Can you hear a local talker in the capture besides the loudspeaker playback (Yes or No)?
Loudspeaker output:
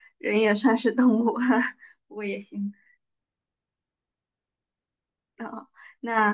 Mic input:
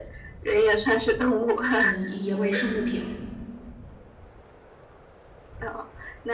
Yes